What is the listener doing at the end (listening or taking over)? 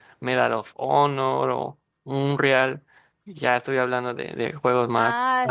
taking over